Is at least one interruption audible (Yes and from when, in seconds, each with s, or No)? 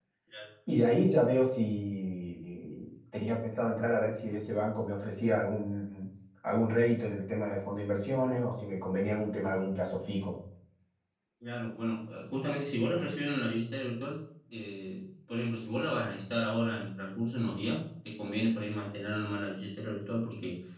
No